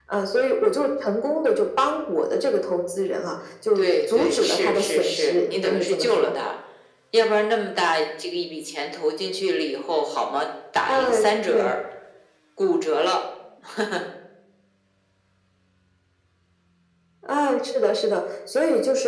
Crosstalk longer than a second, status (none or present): present